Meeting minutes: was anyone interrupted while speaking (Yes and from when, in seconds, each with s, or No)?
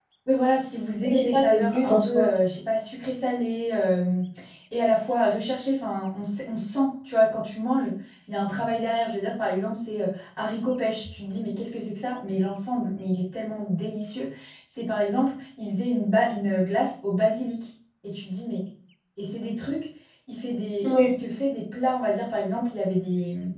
Yes, from 1.0 s